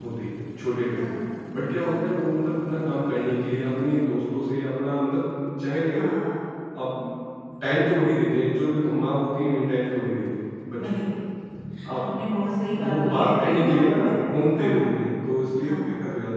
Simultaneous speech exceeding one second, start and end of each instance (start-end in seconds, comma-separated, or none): 12.9-14.2